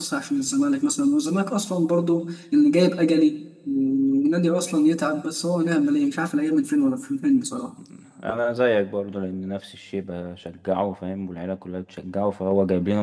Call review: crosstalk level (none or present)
none